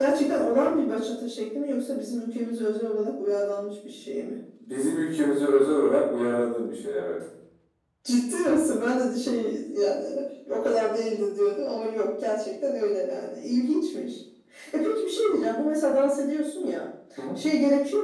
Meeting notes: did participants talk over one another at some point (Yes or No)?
No